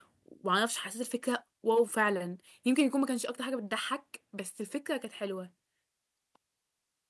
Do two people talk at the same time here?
No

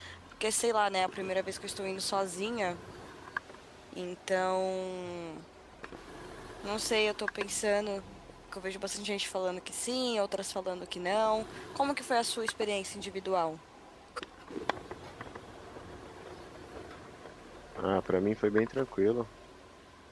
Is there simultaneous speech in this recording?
No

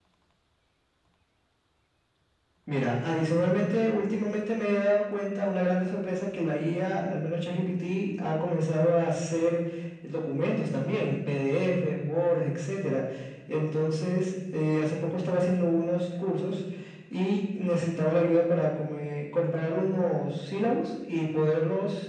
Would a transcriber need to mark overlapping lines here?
No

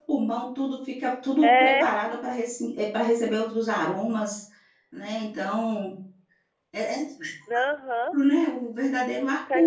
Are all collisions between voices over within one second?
Yes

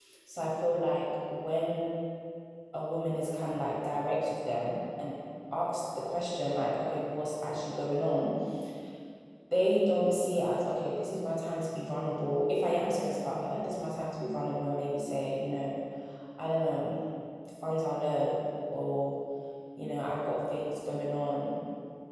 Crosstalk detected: No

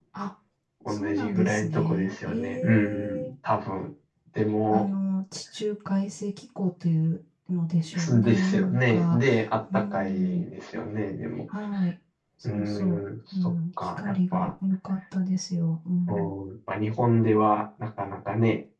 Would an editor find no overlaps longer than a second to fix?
No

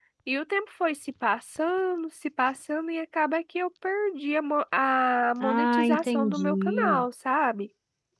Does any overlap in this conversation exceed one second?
Yes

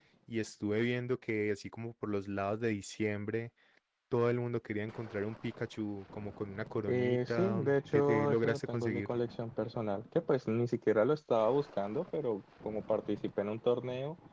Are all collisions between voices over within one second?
No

